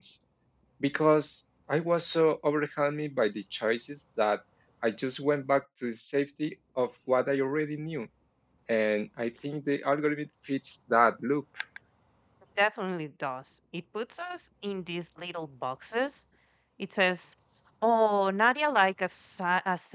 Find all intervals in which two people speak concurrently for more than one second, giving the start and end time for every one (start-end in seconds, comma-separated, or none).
none